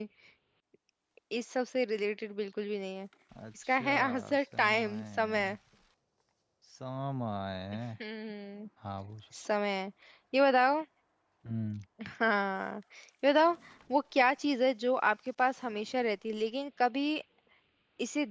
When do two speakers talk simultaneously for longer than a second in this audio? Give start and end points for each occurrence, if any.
3.6-5.6

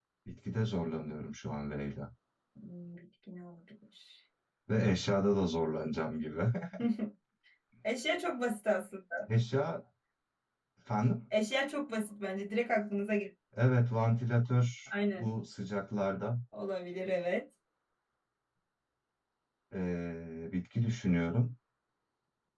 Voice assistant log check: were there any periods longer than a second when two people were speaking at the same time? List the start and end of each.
none

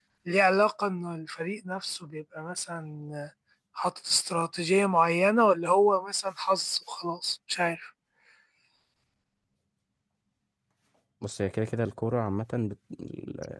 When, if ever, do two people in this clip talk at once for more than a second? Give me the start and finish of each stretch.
none

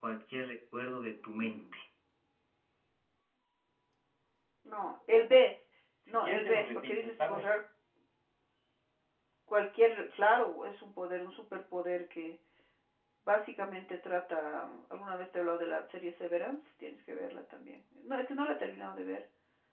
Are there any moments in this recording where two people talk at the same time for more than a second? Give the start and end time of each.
6.1-7.5

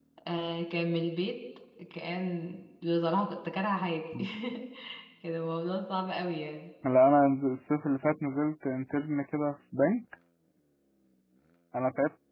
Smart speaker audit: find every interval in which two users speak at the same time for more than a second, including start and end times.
none

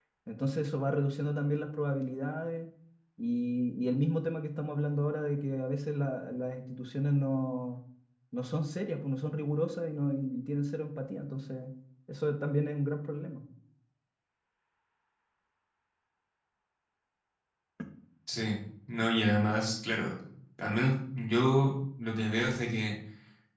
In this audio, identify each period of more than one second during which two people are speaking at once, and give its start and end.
none

